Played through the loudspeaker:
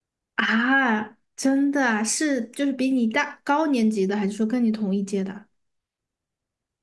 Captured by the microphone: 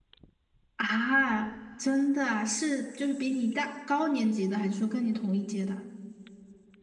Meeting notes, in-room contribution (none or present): none